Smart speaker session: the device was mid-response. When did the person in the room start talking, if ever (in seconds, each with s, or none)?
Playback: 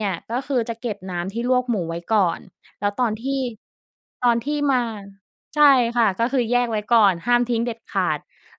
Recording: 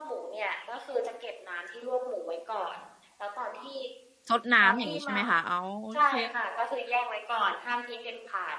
4.3 s